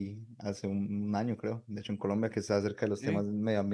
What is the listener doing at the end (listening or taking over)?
listening